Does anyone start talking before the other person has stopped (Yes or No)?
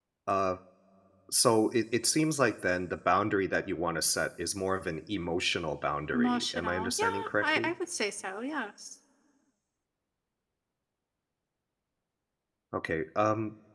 Yes